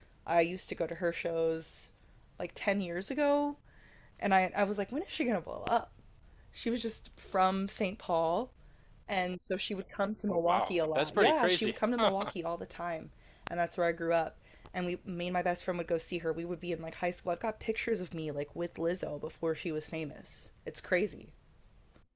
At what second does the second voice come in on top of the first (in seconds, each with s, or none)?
10.3 s